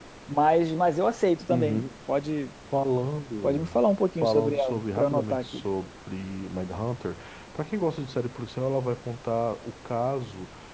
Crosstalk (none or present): present